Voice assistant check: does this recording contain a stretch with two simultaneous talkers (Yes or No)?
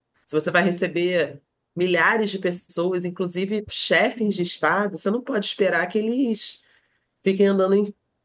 No